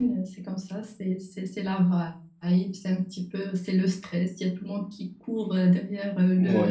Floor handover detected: Yes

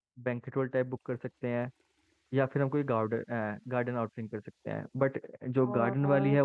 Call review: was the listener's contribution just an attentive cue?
Yes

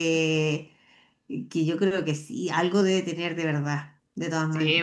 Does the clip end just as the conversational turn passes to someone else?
Yes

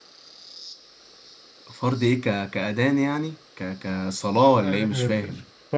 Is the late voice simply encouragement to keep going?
No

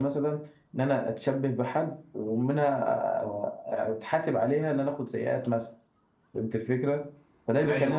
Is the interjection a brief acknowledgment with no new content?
Yes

